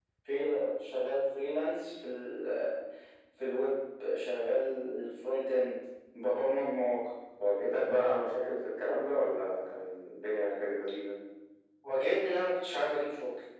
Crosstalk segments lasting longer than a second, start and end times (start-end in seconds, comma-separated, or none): none